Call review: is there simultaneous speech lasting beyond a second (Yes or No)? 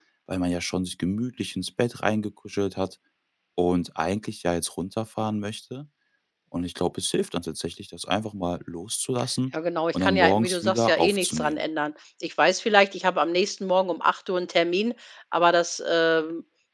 Yes